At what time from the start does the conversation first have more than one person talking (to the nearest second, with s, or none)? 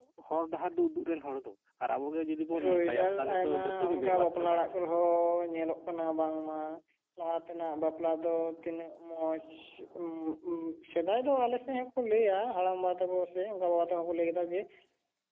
3 s